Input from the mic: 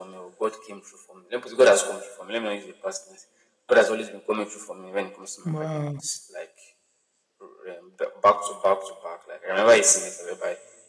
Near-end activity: present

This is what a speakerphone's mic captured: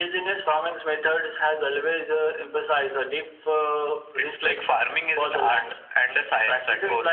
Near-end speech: none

